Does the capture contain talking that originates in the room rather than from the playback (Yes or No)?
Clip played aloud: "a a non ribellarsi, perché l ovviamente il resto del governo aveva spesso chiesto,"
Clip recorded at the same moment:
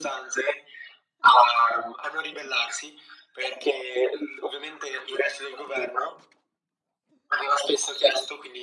No